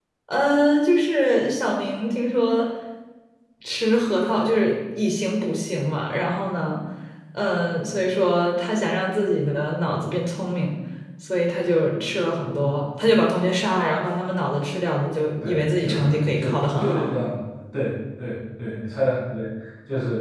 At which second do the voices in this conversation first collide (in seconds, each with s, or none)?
15.3 s